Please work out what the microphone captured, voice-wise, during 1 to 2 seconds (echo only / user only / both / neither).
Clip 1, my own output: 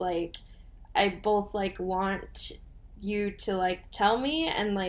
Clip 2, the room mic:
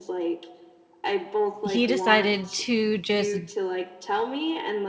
both